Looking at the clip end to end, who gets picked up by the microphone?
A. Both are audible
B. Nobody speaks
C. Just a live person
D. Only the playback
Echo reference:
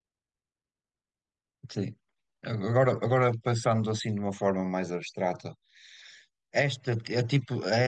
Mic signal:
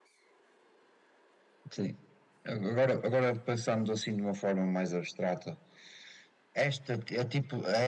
D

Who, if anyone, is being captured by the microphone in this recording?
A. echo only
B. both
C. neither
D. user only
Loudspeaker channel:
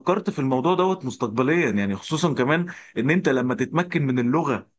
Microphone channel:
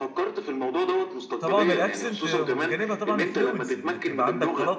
B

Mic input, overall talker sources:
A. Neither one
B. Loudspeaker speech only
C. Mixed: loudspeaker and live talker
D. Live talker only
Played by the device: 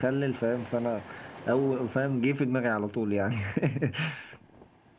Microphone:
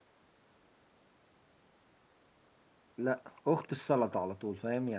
D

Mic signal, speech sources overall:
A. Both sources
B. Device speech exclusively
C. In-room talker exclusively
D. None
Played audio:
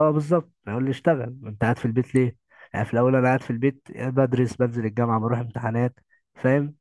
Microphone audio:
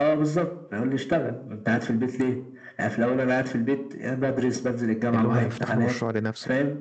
A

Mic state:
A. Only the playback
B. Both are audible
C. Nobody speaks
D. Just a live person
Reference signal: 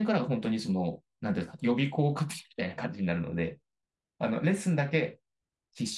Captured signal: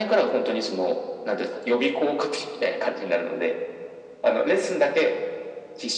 A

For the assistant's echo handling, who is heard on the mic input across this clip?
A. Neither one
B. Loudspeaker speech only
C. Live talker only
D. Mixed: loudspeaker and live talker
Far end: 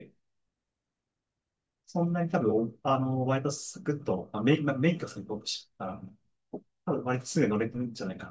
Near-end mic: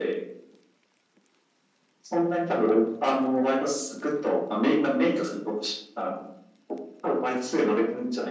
B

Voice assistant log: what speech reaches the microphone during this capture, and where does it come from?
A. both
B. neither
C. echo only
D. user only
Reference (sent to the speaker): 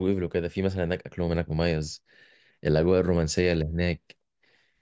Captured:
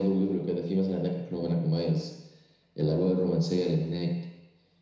C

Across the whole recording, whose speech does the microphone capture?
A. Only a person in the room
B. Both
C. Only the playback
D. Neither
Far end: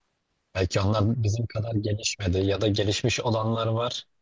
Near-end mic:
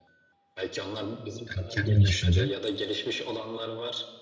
B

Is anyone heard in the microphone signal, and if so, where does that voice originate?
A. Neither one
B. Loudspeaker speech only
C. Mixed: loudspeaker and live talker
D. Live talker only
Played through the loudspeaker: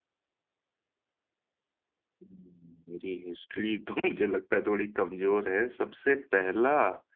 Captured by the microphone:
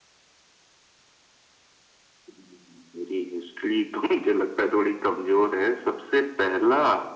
B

